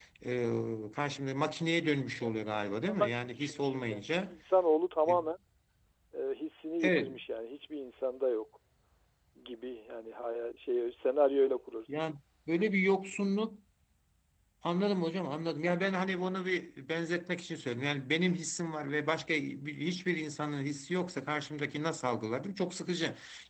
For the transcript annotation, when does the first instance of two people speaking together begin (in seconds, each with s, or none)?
2.2 s